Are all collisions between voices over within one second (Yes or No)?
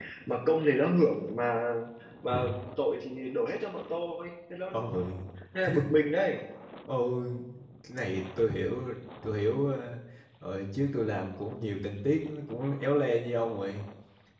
Yes